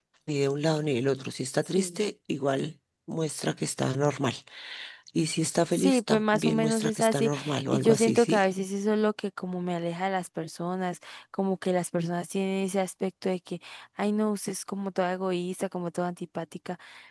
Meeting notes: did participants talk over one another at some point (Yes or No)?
Yes